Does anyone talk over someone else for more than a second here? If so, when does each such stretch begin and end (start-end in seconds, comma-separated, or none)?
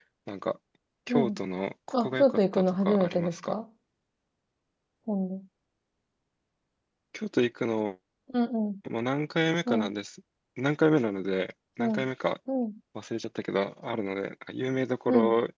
2.0-3.5